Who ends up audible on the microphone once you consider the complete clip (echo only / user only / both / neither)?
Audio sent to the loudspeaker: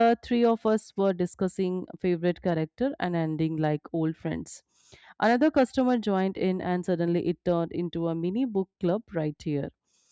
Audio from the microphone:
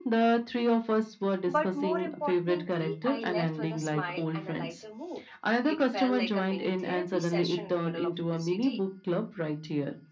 both